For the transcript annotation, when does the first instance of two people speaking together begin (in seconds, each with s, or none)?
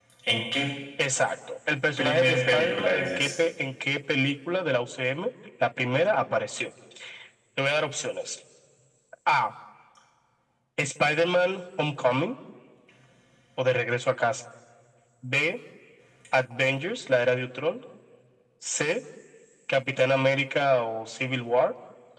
2.0 s